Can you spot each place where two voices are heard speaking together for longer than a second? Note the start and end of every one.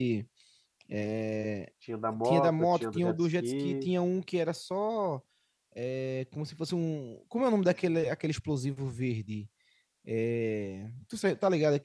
2.2-3.9

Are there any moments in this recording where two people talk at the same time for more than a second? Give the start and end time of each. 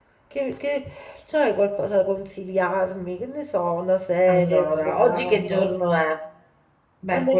4.3-5.7

